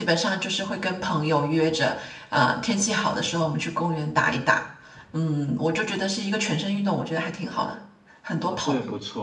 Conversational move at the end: taking over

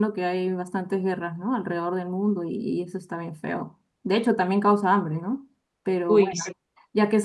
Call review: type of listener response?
listening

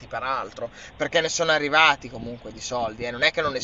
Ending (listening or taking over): listening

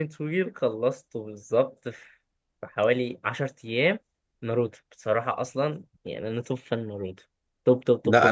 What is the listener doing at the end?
taking over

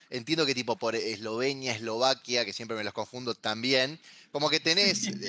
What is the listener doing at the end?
listening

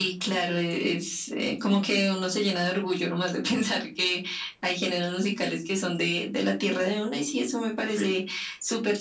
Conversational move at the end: listening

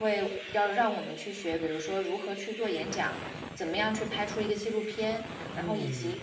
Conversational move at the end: listening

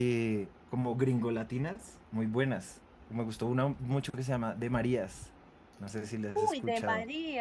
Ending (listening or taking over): taking over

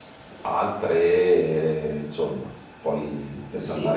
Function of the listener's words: listening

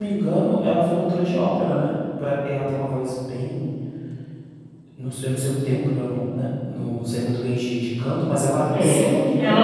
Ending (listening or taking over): taking over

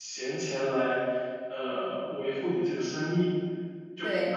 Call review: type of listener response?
taking over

